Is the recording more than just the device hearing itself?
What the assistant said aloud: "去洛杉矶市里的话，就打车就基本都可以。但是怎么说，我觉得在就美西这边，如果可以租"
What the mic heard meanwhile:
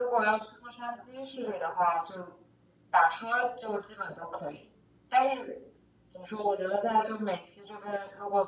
No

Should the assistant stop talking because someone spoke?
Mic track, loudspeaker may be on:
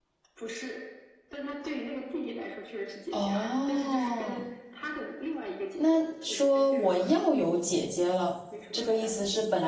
Yes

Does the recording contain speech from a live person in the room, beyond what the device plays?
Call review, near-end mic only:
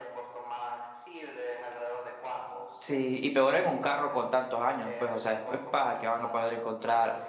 Yes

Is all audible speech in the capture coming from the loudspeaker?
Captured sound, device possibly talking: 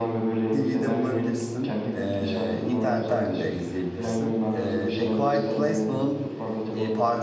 No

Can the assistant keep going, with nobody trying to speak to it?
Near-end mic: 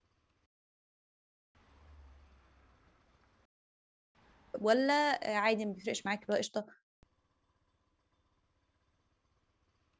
No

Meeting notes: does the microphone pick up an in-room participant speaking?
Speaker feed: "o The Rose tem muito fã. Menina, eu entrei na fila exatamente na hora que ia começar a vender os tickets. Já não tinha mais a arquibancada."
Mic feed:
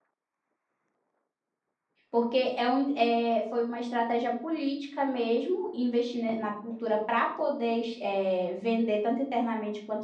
Yes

